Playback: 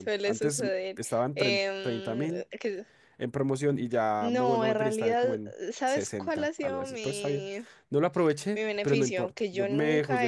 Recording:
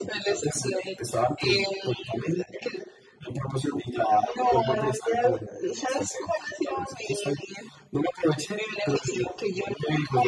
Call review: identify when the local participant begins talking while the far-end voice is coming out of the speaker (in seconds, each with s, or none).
none